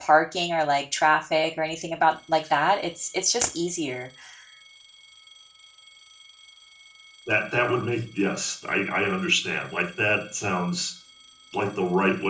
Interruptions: none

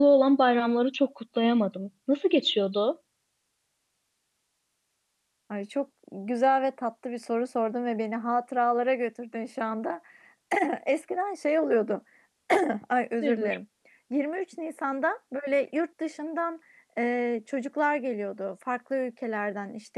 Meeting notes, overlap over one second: none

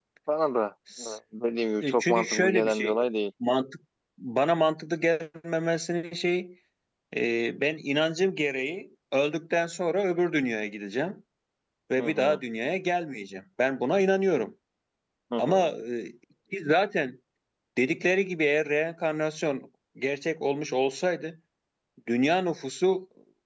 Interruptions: present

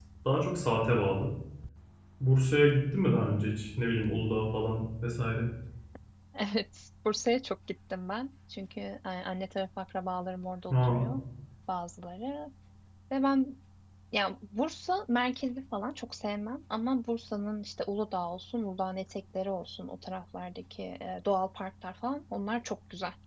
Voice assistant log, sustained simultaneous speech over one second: none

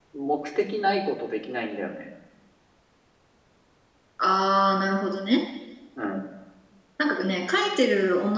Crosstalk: none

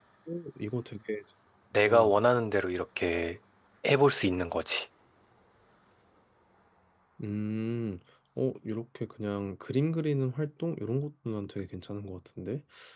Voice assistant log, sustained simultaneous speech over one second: none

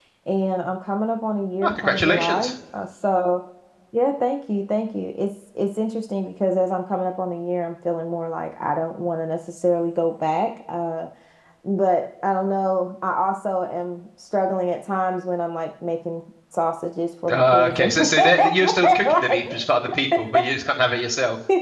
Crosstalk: present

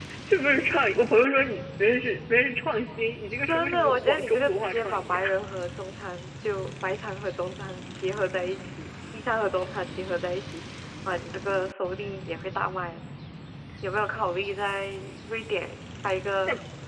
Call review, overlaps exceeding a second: present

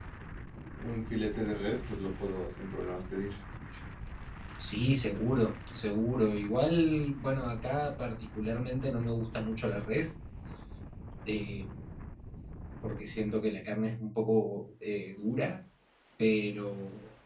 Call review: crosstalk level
none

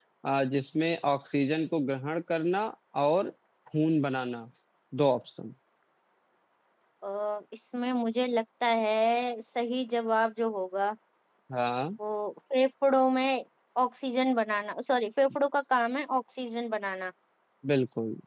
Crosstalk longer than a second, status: none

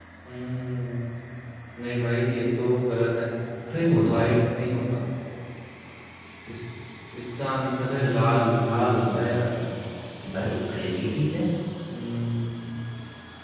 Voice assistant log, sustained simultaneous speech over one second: present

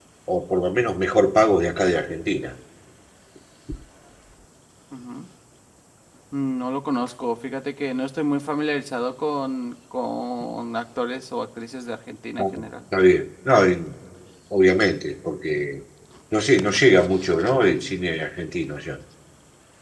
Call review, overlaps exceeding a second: none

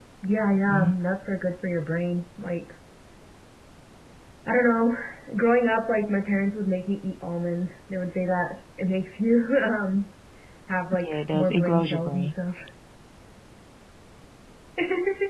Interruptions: present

